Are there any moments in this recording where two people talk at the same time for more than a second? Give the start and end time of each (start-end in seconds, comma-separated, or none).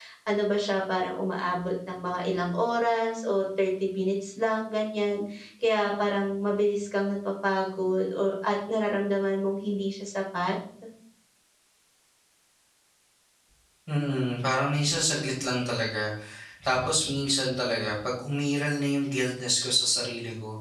none